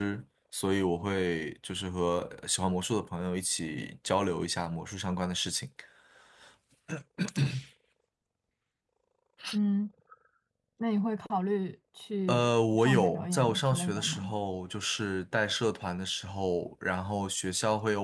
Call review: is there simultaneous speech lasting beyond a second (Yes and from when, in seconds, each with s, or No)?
Yes, from 12.3 s